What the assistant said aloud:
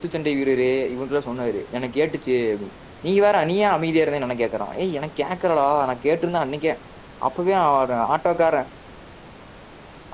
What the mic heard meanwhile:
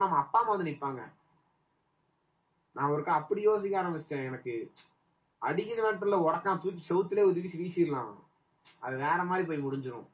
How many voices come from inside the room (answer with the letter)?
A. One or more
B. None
A